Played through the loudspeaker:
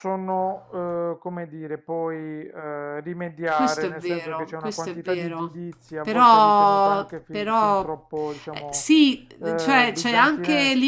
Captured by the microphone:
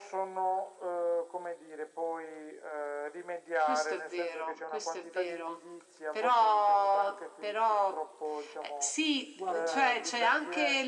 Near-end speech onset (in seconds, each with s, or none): 9.4 s